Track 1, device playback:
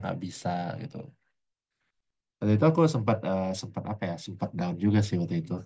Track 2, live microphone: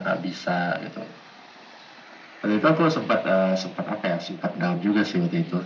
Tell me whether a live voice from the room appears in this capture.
No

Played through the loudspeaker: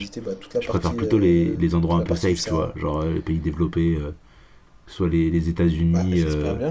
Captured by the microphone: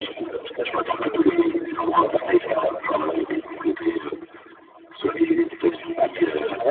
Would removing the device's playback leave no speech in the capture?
Yes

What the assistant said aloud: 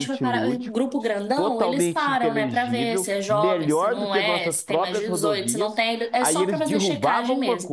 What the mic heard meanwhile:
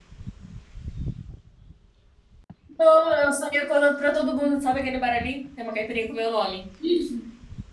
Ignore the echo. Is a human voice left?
Yes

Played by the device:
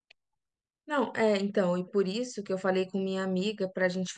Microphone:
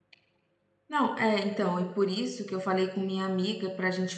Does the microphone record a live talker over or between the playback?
No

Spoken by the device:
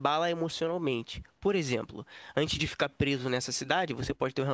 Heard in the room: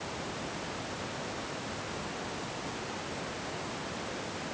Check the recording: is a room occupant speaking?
No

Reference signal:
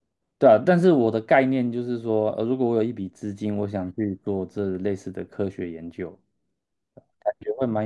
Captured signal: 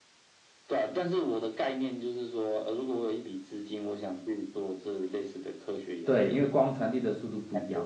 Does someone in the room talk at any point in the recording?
Yes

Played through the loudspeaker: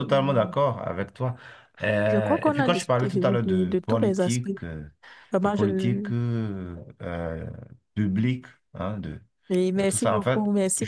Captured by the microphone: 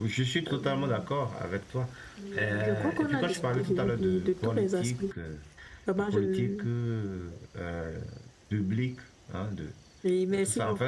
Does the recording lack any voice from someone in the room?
No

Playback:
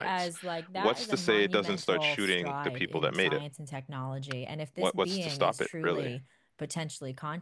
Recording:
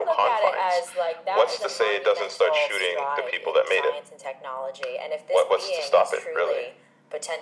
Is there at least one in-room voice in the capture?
No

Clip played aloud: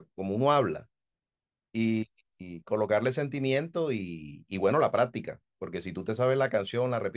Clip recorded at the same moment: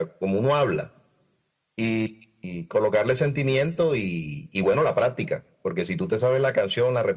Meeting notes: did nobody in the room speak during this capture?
Yes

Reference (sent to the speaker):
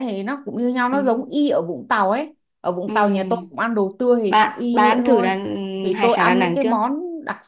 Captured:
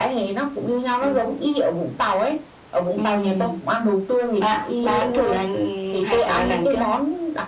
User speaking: No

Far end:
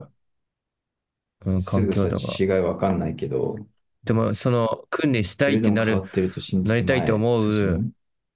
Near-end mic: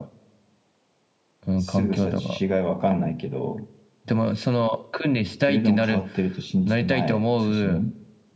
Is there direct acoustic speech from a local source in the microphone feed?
No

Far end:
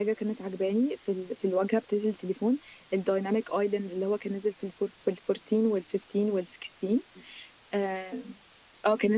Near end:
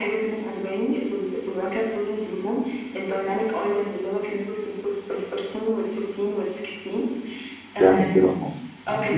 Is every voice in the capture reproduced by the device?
No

